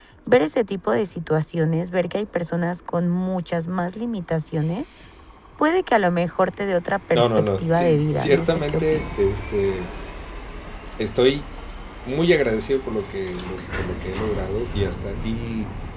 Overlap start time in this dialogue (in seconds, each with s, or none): 7.1 s